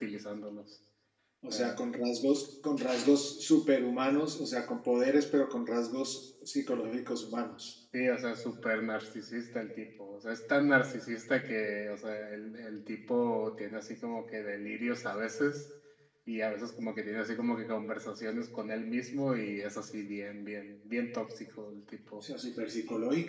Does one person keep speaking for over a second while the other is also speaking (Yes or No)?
No